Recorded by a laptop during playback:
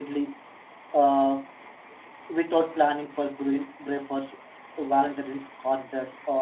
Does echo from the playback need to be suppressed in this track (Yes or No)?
No